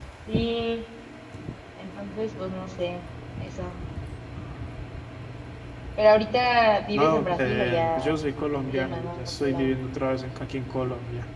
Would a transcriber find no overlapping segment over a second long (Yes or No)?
No